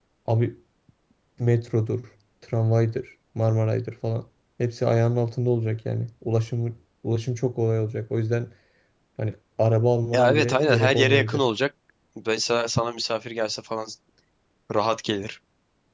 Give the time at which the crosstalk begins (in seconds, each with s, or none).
10.1 s